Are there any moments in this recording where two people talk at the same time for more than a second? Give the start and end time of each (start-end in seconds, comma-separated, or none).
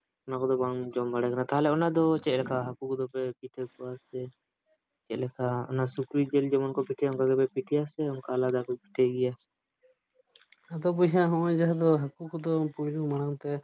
none